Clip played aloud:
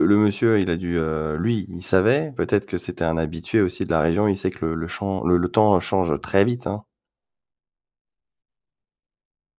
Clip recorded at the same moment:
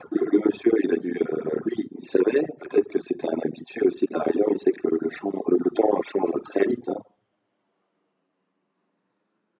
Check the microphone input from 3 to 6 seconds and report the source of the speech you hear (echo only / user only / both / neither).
echo only